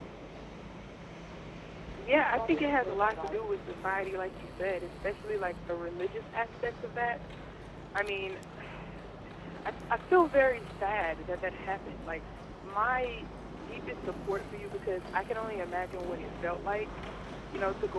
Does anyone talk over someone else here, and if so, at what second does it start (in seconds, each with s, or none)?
2.3 s